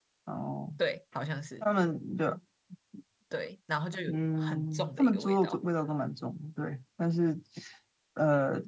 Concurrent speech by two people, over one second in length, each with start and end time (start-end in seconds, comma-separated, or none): 4.1-5.6